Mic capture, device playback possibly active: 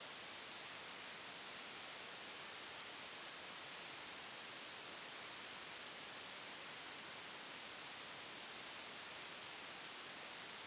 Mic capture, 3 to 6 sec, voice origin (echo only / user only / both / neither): neither